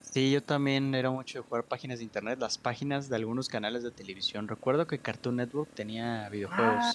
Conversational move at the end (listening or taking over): taking over